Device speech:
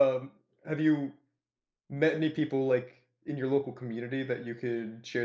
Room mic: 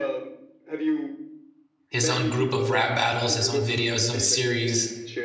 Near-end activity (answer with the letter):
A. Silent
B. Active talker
B